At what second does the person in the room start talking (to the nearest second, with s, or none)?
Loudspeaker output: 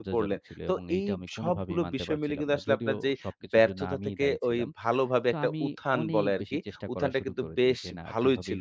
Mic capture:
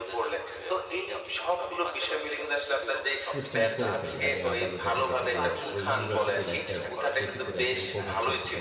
3 s